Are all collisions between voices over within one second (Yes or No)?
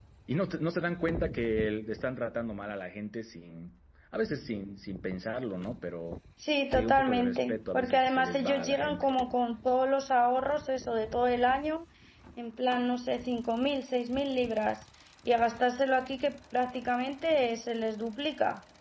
No